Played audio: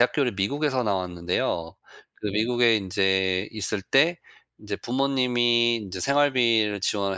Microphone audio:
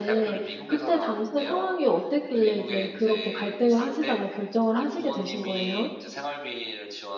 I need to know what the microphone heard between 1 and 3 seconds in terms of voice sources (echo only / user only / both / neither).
both